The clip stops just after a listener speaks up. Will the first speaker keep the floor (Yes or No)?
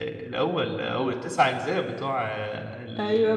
No